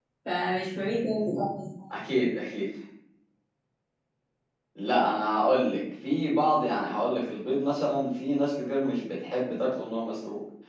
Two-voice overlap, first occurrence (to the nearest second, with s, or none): none